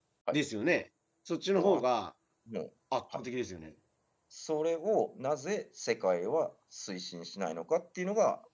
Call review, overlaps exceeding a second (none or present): none